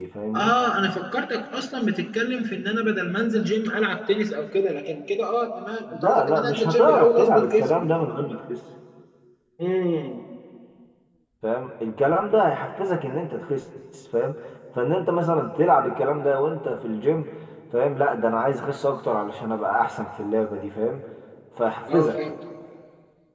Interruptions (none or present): present